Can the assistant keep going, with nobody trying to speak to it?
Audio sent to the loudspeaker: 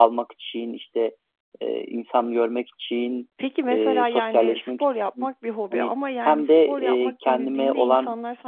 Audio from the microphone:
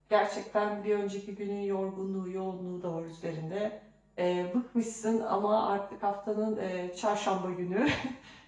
No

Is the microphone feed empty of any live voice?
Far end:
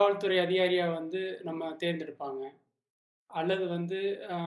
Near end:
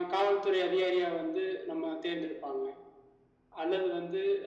Yes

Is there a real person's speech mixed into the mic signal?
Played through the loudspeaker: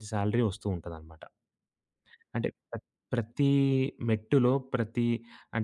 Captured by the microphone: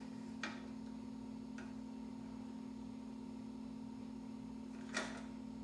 No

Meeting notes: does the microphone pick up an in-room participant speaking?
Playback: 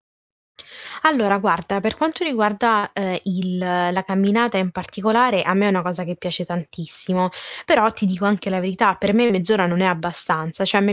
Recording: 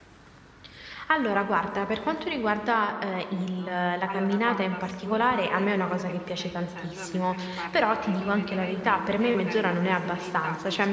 Yes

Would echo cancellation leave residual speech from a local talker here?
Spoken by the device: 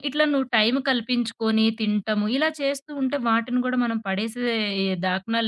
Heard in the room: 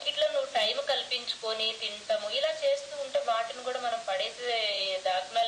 No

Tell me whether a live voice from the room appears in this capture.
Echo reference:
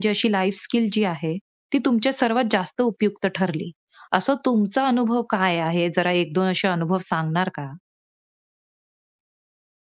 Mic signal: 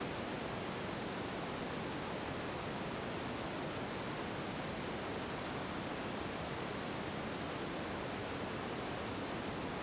No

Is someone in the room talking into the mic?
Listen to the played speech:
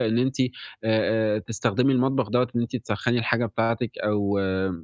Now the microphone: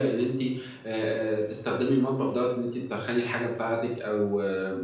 No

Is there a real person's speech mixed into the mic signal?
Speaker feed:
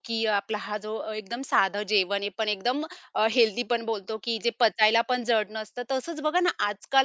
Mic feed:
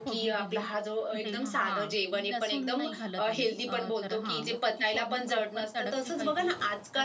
Yes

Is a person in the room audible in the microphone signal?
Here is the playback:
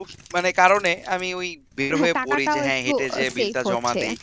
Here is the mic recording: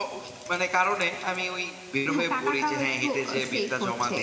No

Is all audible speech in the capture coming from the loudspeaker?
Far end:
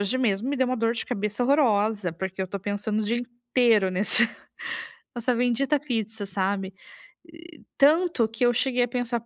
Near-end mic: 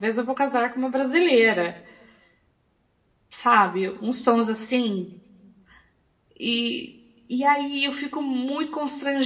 No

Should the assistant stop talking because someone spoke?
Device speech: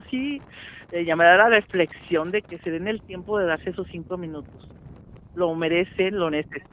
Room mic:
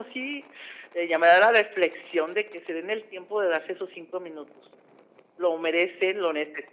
No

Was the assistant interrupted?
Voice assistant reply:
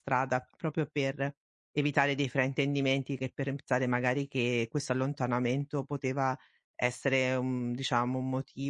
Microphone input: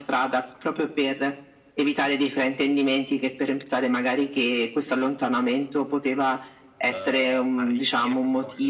Yes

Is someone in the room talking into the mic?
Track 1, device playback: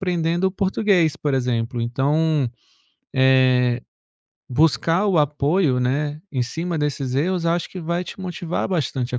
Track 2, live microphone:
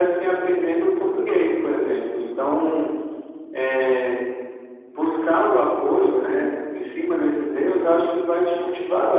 No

